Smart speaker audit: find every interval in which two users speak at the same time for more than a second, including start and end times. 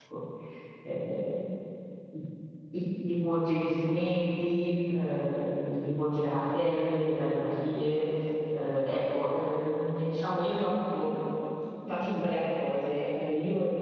none

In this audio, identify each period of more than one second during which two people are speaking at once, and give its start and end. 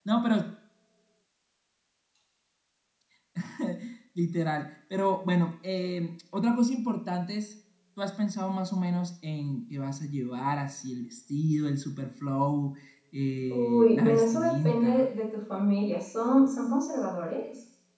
13.5-15.1

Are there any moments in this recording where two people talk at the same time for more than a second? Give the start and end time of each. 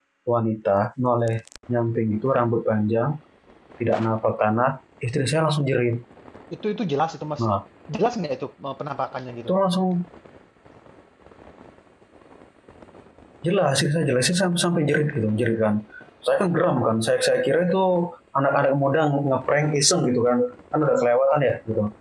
none

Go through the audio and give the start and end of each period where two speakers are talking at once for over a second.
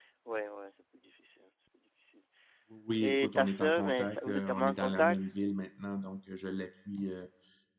3.0-5.2

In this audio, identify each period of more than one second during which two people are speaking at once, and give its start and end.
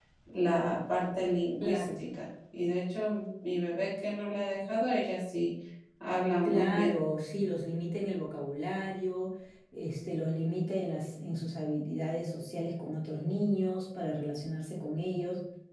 none

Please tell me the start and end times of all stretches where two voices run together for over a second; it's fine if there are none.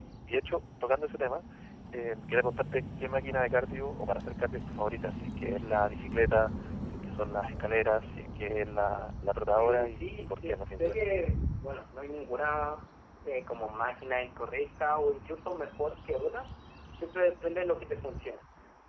9.5-10.9

